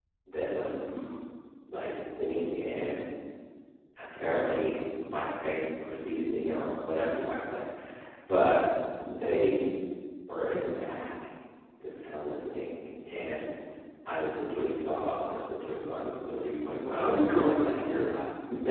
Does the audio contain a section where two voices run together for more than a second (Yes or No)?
Yes